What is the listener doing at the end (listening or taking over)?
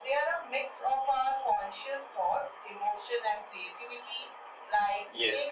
listening